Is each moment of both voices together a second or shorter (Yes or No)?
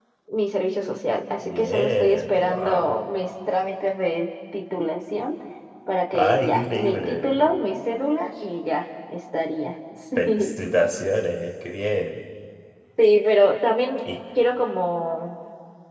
No